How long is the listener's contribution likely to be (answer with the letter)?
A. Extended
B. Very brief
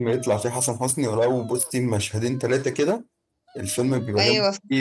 B